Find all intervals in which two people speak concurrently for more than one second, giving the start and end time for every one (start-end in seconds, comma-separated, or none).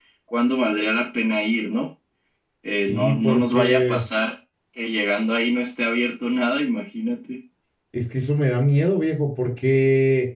2.8-4.0